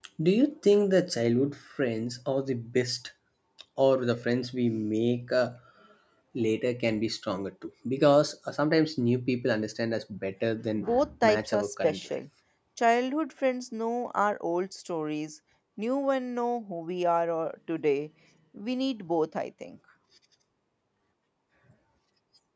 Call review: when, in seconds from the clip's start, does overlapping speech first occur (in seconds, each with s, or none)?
10.8 s